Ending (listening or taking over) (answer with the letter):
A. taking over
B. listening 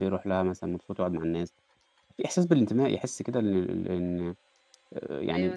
A